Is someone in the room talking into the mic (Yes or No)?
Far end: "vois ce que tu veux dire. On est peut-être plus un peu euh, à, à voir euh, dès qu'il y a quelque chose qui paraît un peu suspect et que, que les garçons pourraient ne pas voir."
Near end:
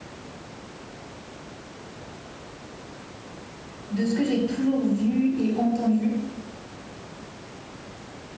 Yes